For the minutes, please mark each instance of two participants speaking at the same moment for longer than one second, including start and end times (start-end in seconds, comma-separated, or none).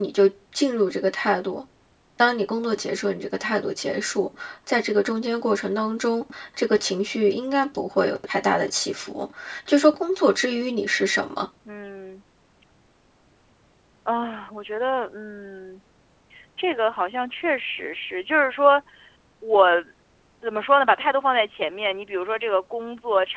none